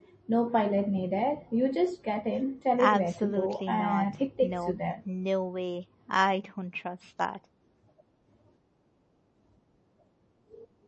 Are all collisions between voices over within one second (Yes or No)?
No